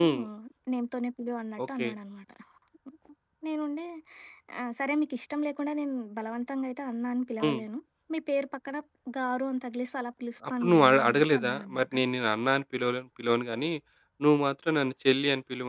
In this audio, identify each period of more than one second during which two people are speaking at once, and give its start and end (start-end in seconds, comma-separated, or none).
10.5-11.9